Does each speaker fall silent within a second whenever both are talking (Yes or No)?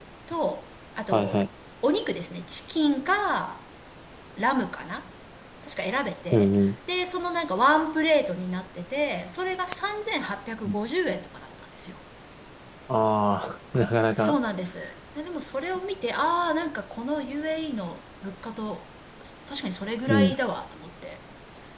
Yes